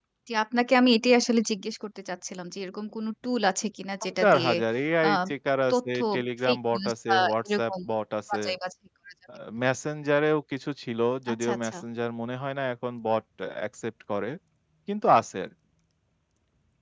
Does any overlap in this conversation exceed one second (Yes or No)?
Yes